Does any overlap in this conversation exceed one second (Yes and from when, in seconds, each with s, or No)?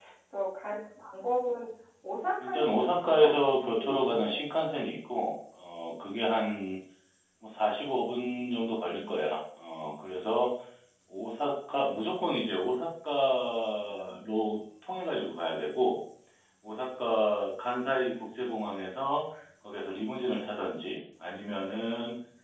Yes, from 2.4 s